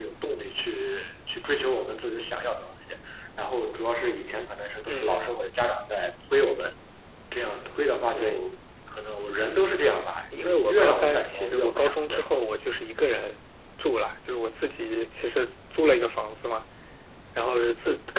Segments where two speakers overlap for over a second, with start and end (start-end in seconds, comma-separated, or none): 10.4-12.2